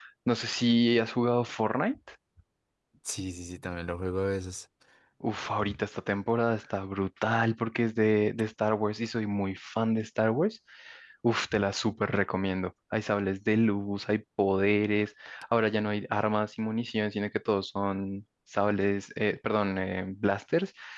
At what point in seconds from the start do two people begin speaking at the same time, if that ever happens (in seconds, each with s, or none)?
none